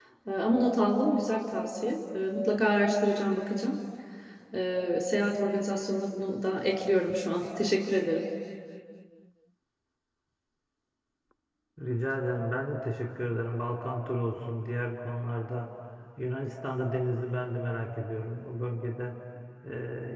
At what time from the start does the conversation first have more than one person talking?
none

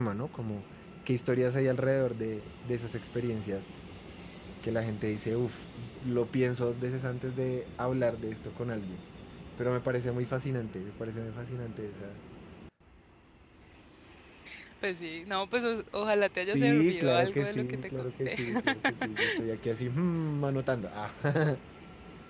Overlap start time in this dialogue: 16.5 s

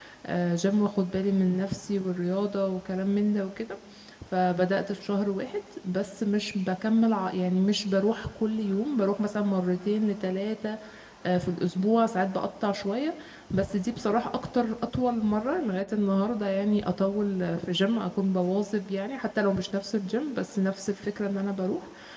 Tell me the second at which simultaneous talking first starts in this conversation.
none

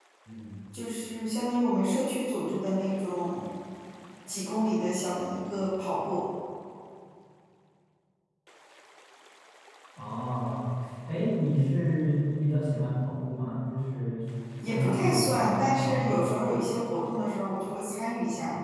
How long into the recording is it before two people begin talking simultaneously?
14.7 s

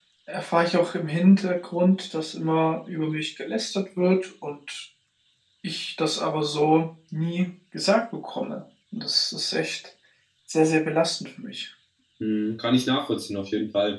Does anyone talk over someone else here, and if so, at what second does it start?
none

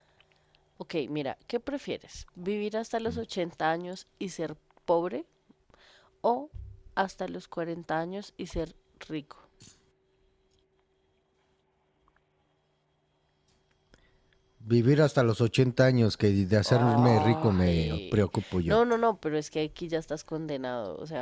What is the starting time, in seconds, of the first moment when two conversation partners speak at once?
16.6 s

